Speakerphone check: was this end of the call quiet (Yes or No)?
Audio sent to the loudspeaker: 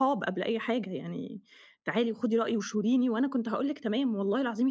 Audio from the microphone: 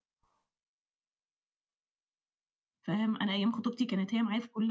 No